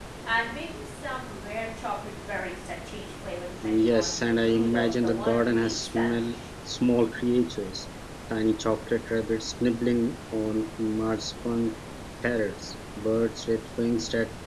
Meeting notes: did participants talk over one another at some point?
Yes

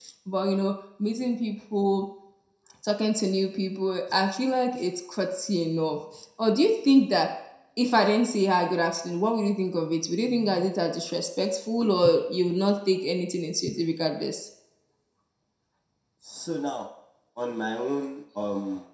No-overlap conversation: Yes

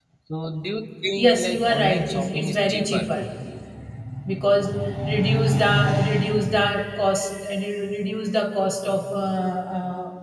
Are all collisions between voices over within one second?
No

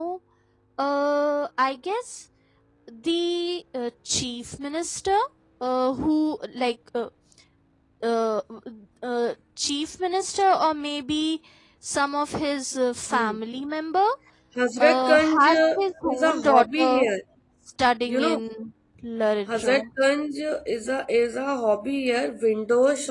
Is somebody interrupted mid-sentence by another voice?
Yes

